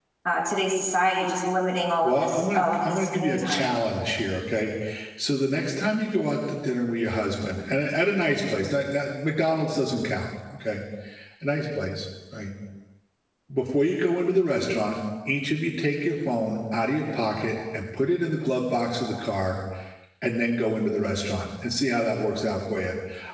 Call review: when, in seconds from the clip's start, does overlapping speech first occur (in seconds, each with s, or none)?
2.0 s